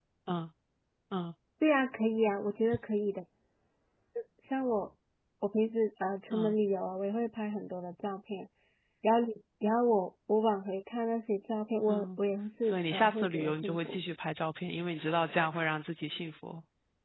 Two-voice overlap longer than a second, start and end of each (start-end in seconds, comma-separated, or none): 12.6-14.0